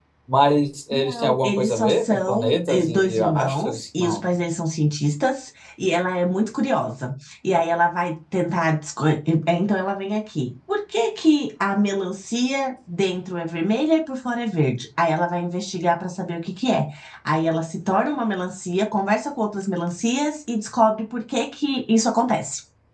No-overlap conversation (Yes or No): No